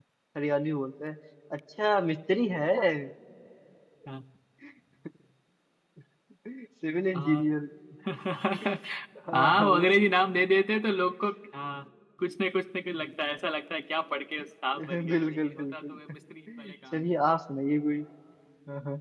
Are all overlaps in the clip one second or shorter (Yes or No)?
No